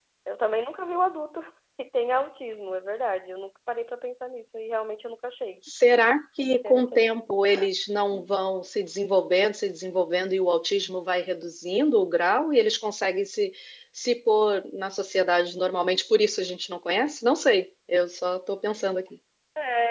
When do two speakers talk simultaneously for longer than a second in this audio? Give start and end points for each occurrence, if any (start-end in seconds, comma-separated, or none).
none